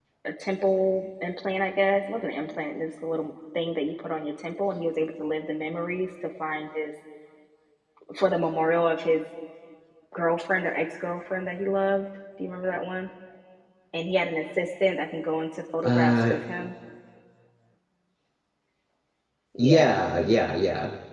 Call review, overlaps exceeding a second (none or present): none